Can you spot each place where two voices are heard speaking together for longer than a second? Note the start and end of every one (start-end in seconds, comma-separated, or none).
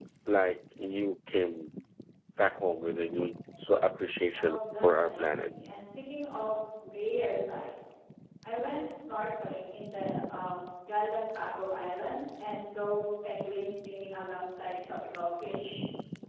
4.3-5.5